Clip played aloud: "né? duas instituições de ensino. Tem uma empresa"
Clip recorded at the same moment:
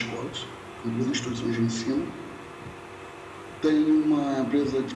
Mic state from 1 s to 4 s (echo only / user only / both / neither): echo only